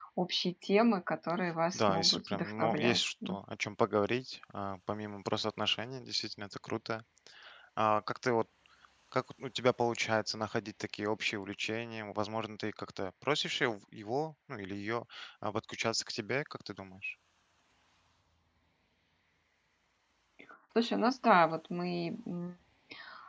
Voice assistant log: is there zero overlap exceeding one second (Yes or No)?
No